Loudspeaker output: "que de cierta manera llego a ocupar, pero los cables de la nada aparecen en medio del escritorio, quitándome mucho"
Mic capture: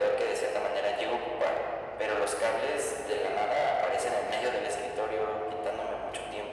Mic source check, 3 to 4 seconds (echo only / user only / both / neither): echo only